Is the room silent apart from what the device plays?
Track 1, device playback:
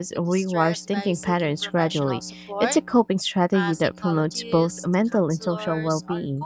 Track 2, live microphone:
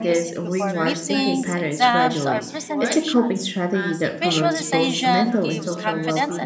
No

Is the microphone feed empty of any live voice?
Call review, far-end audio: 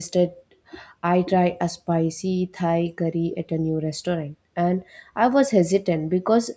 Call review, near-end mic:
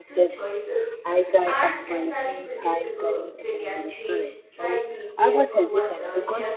No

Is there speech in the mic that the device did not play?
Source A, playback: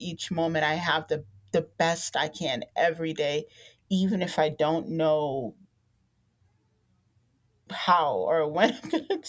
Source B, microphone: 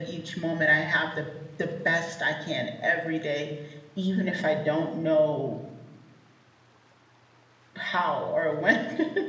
No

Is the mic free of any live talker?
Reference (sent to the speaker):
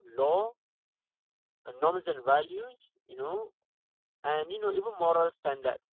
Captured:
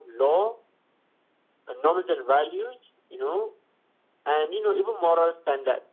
Yes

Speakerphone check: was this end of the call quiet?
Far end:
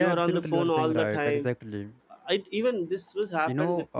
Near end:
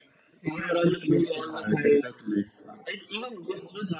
Yes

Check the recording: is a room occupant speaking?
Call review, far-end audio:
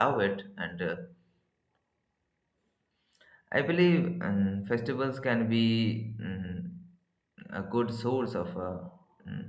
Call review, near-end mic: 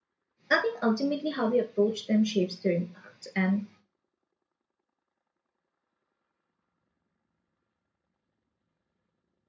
Yes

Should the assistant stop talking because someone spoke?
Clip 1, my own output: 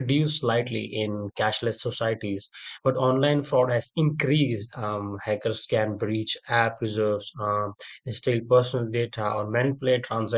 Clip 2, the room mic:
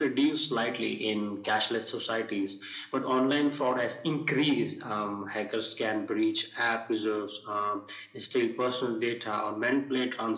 No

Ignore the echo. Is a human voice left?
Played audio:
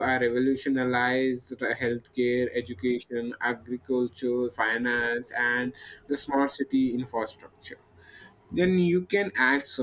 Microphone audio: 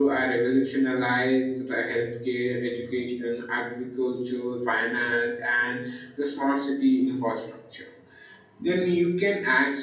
No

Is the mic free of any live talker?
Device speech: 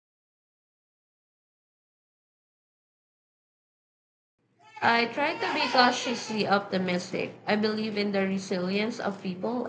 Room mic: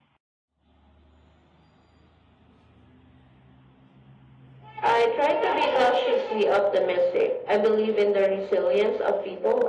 Yes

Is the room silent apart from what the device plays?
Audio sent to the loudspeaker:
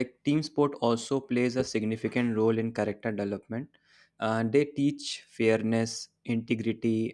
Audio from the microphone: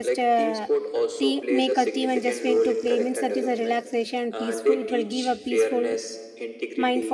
No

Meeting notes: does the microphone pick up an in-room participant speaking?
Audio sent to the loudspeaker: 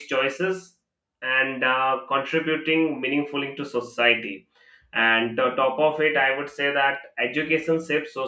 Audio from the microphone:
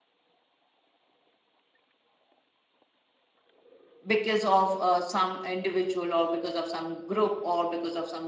Yes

